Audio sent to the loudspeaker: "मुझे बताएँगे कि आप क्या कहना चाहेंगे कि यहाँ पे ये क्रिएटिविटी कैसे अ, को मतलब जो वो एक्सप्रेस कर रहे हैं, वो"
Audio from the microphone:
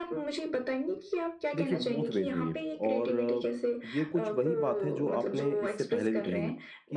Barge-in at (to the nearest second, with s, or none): 2 s